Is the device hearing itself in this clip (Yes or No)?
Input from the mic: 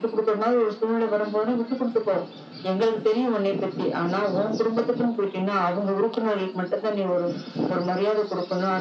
Yes